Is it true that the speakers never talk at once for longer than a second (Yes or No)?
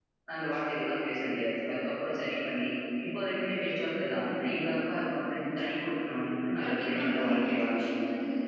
No